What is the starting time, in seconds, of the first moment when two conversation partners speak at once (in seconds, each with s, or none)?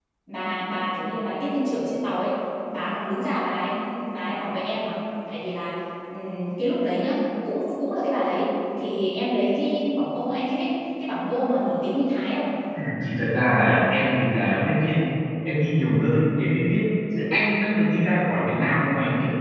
none